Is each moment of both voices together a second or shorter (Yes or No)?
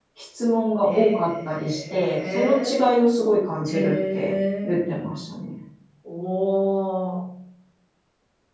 No